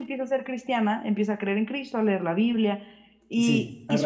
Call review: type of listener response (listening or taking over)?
taking over